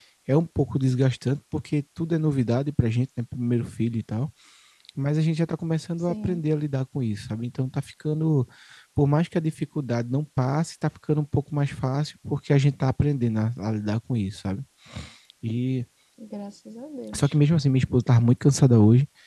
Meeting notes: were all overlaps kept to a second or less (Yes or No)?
Yes